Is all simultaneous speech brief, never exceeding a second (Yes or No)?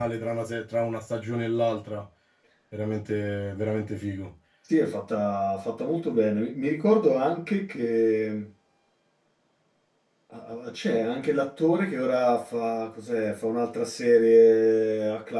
Yes